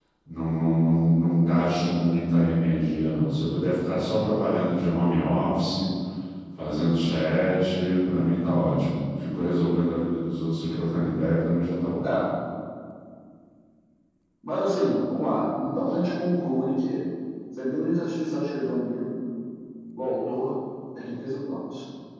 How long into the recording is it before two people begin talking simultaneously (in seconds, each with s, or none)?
none